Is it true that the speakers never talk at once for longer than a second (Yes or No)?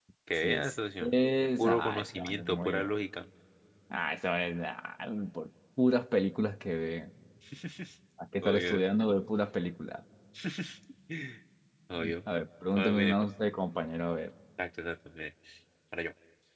No